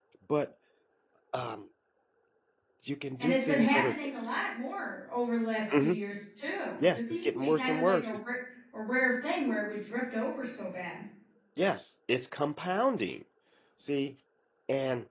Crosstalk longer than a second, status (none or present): present